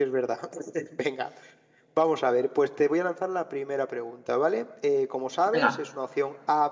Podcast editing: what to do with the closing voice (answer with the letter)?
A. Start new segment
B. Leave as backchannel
B